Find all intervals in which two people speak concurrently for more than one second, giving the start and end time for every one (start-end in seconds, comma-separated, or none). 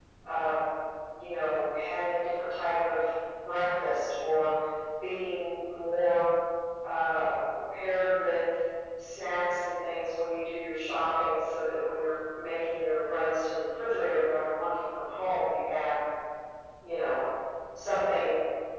none